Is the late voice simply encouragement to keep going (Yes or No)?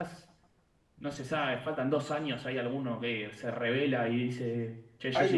No